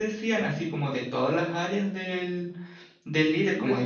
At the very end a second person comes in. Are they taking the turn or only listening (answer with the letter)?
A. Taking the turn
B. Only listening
B